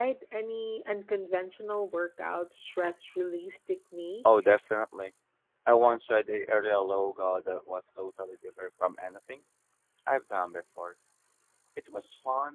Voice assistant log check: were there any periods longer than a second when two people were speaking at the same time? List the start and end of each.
none

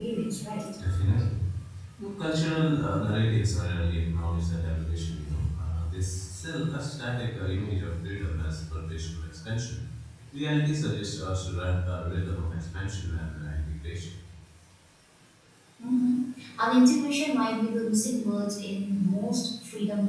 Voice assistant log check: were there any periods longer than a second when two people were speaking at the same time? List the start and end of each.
none

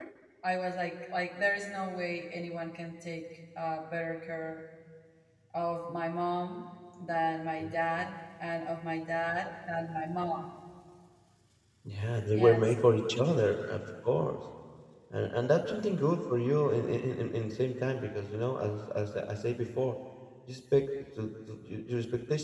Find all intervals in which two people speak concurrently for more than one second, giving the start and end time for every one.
none

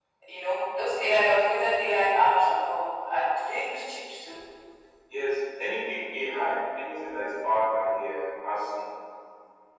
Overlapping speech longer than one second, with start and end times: none

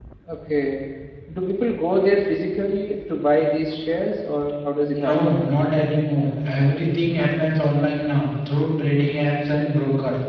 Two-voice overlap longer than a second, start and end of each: none

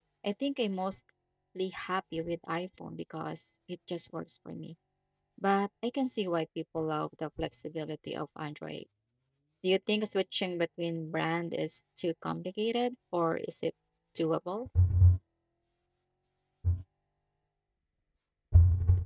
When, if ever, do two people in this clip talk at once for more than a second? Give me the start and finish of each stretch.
none

